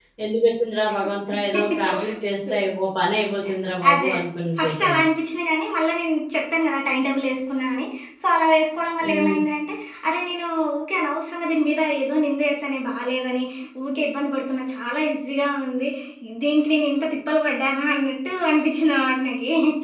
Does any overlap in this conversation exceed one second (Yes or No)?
No